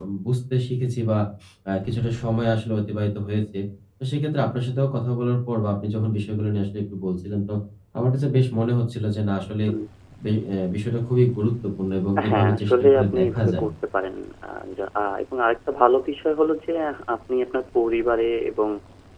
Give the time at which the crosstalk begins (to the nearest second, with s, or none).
12 s